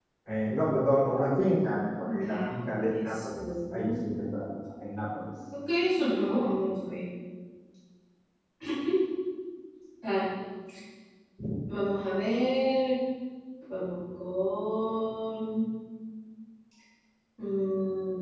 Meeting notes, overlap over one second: present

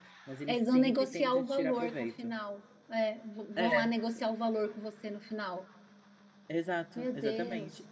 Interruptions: present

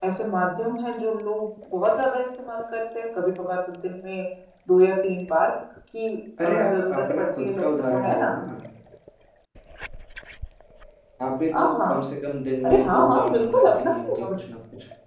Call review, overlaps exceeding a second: present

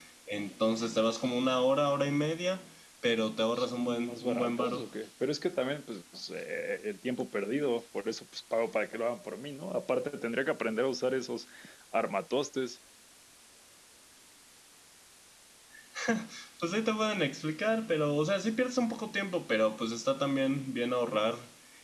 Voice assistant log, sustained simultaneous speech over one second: present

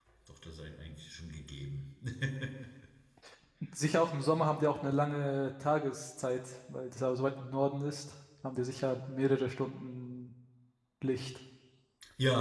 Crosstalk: none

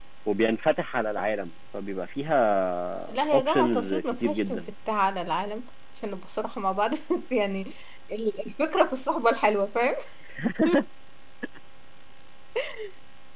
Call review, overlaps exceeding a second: present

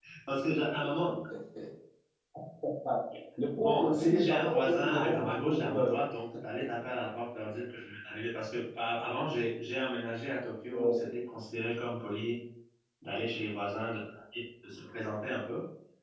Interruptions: present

